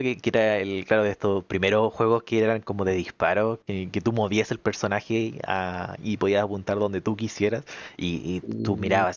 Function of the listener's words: listening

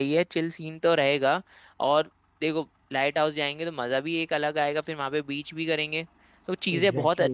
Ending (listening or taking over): listening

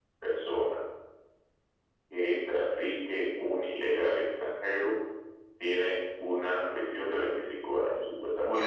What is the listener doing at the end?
taking over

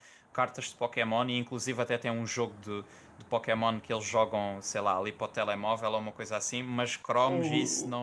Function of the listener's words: listening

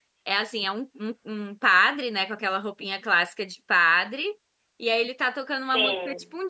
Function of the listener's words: listening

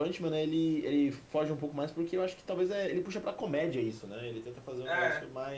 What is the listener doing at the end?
listening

